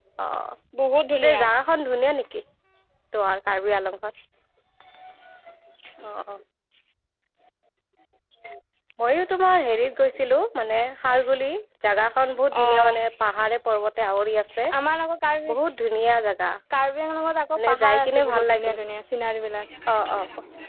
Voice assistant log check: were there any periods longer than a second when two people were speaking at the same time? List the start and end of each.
17.5-18.8

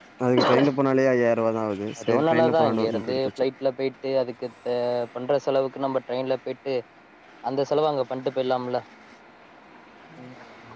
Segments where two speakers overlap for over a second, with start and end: 2.0-3.2

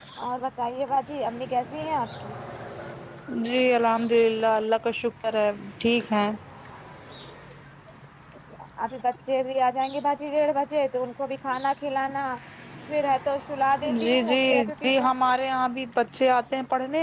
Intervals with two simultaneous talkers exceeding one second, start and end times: 13.8-15.1

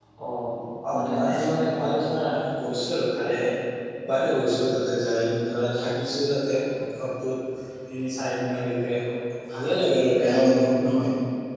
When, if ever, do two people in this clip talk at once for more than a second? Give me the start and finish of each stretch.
0.9-2.4

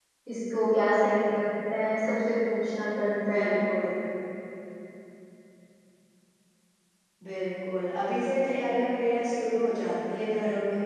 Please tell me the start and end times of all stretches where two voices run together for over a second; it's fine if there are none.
none

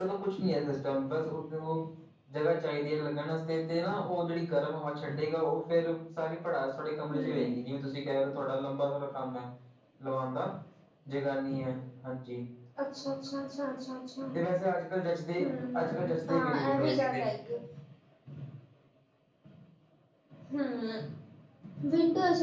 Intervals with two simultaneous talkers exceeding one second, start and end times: 15.8-17.2

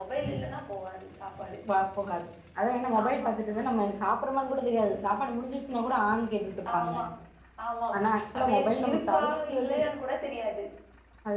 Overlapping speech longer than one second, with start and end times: 8.4-9.8

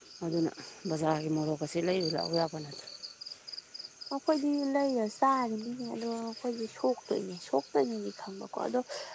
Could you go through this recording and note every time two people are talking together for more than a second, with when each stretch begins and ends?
none

